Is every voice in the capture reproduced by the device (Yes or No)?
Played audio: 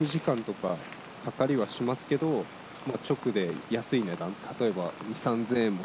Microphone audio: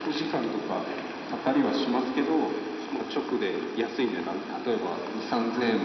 Yes